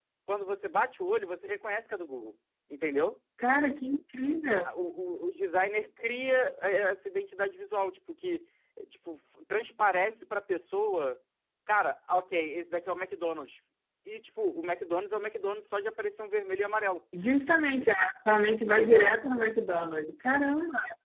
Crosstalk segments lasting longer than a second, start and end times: none

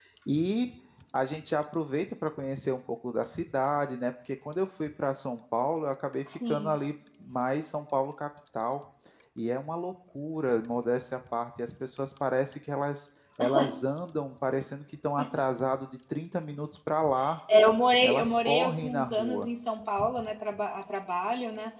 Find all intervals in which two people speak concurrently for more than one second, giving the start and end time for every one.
18.0-19.5

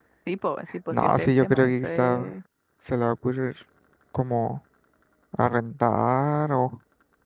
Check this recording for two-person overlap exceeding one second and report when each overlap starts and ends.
0.9-2.3

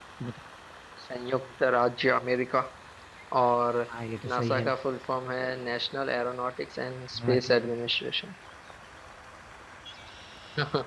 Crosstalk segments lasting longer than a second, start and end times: none

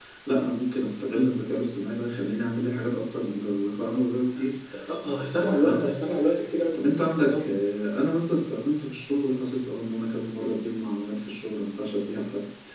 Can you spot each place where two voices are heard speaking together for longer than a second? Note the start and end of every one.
none

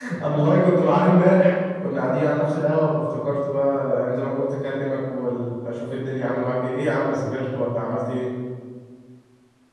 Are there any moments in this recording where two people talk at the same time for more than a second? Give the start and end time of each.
none

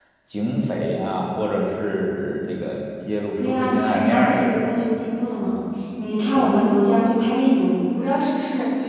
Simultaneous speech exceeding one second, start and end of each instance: 3.4-4.8

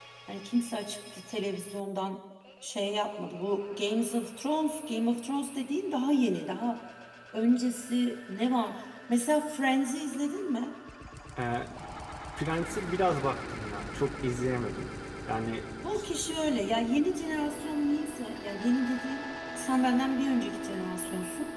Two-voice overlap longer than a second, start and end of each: none

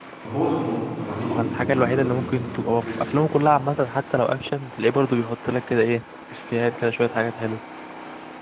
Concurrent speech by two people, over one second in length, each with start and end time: 1.3-3.2

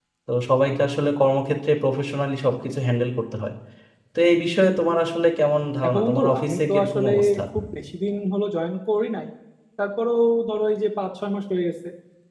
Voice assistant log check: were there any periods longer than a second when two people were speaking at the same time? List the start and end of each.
5.8-7.1

